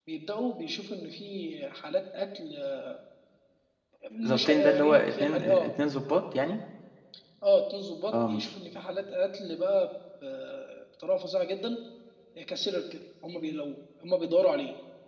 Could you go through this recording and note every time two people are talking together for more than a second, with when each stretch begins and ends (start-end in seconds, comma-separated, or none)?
4.3-5.7